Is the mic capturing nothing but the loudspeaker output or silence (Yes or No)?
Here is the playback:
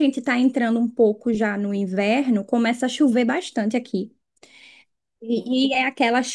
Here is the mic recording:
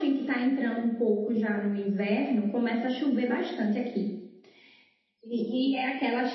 Yes